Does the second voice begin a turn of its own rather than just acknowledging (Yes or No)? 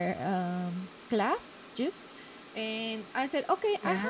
No